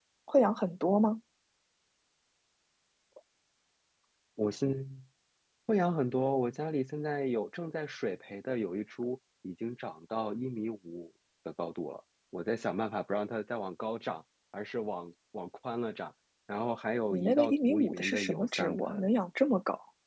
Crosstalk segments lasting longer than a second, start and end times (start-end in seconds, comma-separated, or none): 17.1-19.1